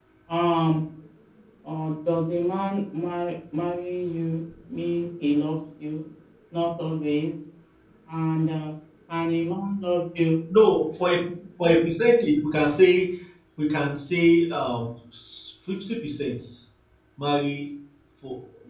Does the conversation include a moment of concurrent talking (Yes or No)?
No